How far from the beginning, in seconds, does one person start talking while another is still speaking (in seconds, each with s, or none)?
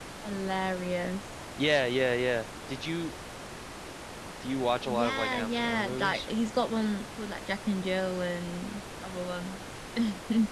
4.9 s